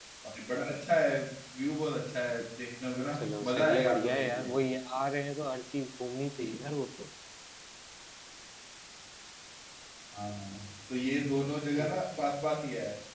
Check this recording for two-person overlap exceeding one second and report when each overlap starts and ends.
3.1-4.5

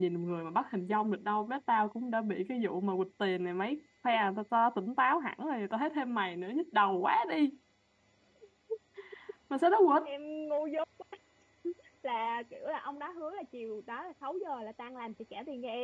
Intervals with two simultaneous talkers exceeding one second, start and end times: none

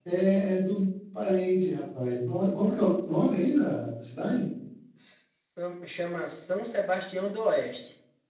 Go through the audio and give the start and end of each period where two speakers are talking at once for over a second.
none

